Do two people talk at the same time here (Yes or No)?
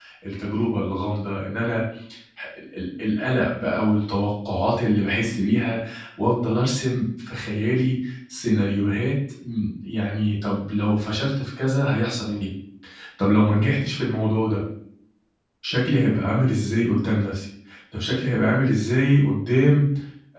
No